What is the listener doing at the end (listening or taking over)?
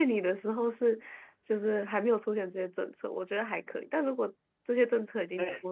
listening